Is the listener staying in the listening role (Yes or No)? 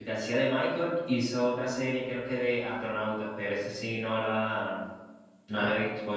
Yes